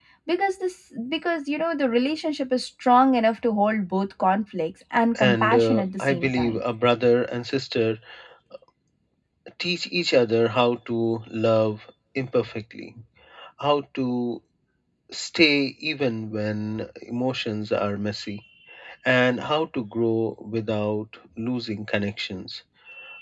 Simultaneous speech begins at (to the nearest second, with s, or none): 5 s